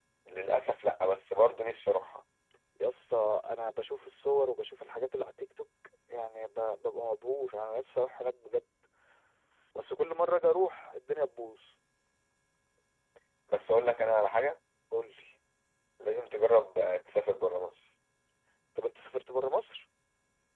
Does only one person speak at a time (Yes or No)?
Yes